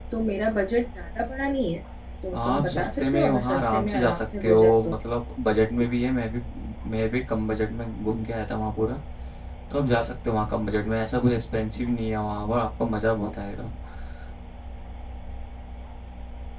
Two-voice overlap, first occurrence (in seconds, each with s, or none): 2.5 s